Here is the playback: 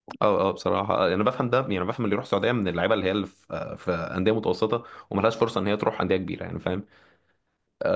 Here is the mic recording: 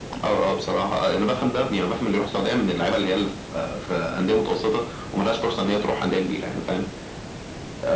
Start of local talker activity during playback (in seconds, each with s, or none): none